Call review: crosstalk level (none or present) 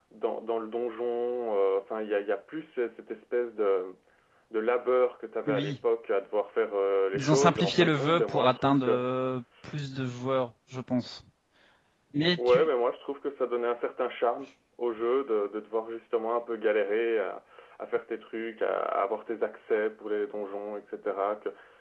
present